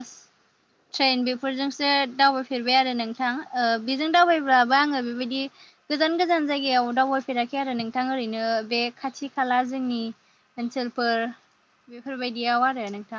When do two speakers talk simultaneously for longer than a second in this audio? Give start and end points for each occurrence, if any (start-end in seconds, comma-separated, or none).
none